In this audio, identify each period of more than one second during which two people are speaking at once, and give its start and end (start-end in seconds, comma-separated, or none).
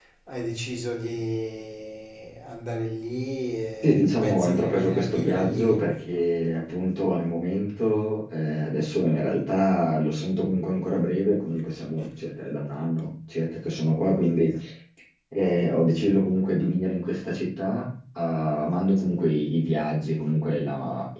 3.8-5.8